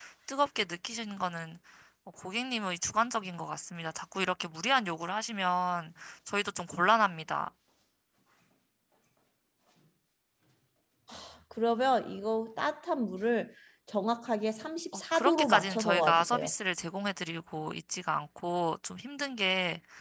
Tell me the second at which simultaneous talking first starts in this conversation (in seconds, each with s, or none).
14.9 s